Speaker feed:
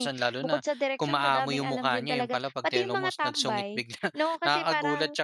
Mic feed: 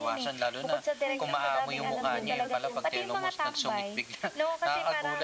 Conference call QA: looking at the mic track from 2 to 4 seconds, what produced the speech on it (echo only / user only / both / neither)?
both